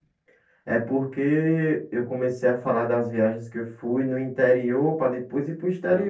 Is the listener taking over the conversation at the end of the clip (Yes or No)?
Yes